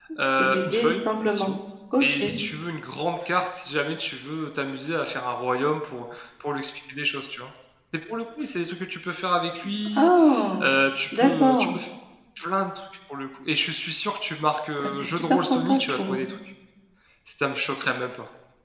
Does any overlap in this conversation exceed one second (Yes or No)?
Yes